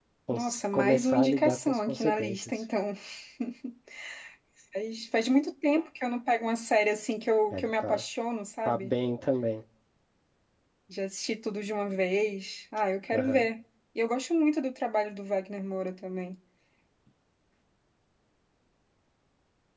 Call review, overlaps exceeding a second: present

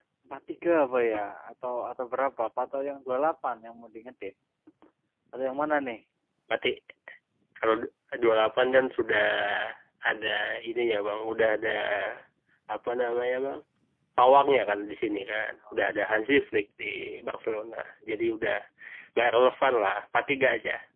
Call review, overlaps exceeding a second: none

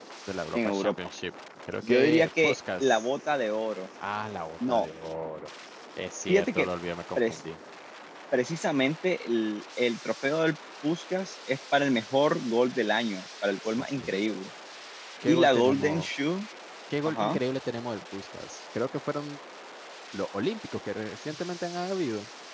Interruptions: present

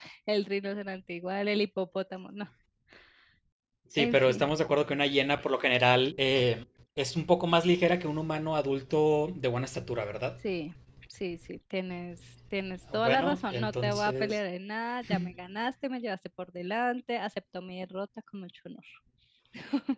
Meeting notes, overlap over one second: present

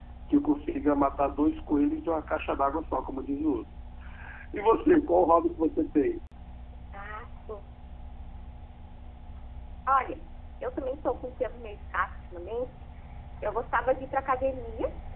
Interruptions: none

